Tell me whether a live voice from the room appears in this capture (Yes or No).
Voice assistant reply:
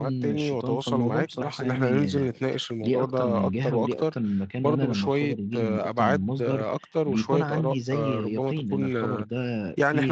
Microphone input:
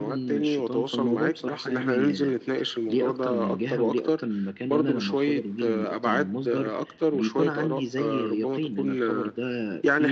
No